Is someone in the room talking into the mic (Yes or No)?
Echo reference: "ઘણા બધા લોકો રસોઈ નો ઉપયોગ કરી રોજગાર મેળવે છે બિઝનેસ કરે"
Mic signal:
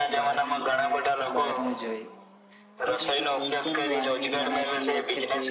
Yes